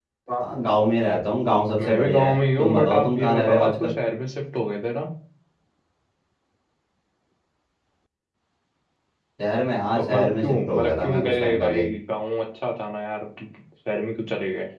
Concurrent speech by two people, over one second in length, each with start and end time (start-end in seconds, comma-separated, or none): 1.8-3.9, 10.0-11.8